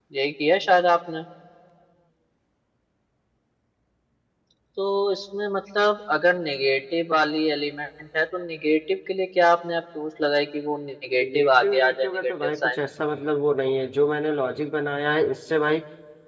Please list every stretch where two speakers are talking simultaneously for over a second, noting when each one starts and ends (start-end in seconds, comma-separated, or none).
11.2-12.8